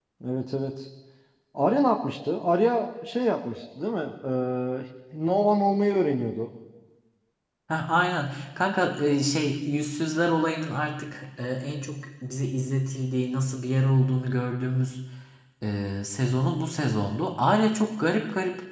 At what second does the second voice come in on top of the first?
none

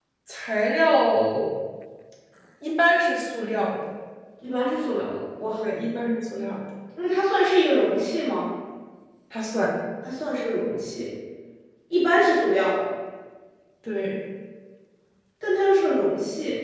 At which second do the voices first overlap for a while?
none

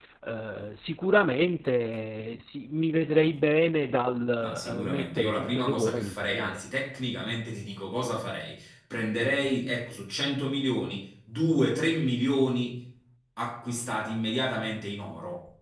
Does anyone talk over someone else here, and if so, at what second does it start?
4.4 s

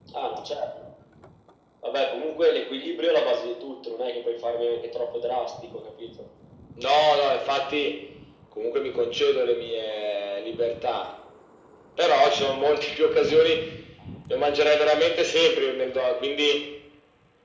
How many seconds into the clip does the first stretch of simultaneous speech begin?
none

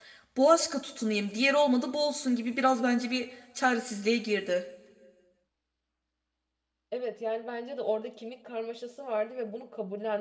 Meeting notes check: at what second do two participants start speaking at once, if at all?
none

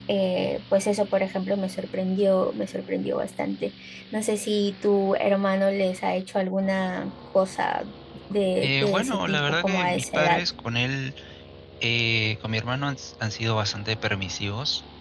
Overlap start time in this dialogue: 8.6 s

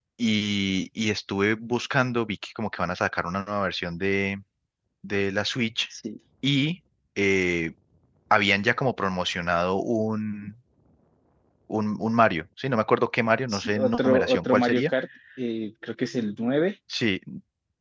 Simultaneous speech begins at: 13.5 s

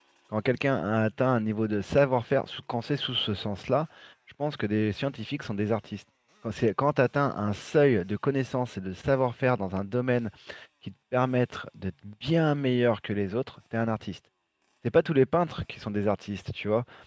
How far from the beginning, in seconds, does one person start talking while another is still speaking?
none

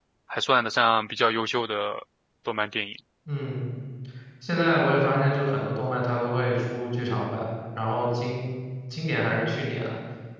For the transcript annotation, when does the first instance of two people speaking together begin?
none

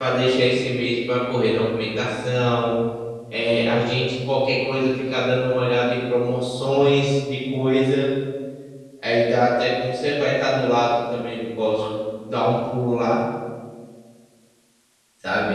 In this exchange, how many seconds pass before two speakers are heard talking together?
none

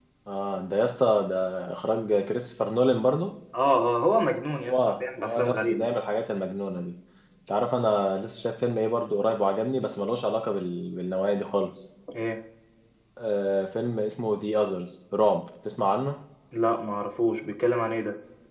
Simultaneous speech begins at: 4.6 s

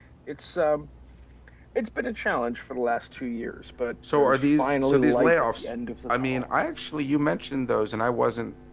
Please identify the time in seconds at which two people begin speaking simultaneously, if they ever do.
4.0 s

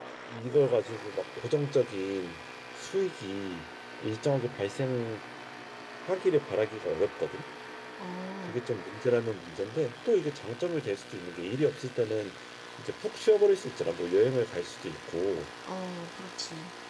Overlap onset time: none

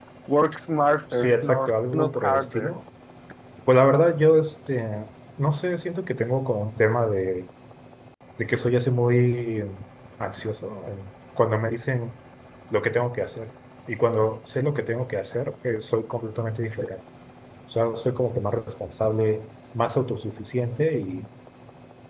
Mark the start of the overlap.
1.1 s

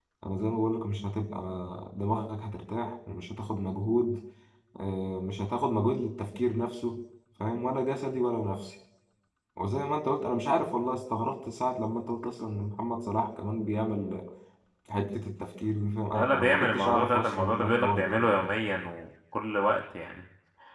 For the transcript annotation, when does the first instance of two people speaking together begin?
16.1 s

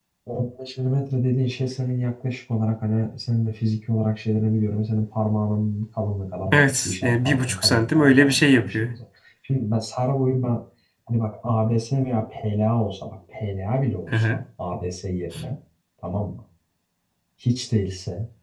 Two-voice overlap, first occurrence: 6.5 s

